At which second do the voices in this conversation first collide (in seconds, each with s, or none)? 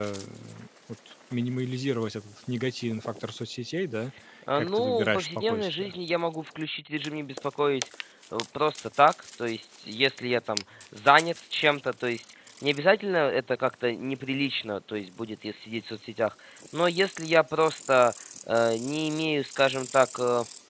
4.5 s